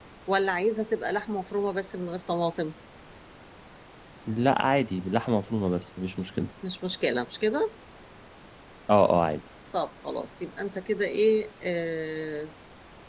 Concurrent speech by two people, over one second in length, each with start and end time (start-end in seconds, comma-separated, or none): none